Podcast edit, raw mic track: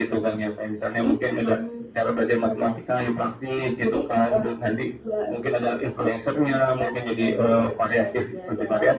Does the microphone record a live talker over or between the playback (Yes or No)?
No